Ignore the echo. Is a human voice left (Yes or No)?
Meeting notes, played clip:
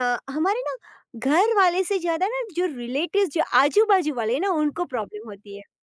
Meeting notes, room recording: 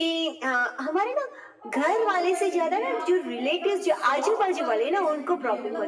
Yes